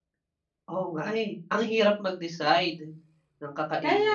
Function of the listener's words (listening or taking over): taking over